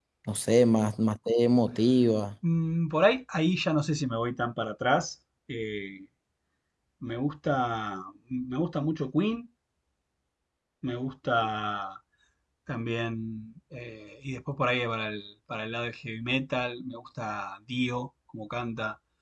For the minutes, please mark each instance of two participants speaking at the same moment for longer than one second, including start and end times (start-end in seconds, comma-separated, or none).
none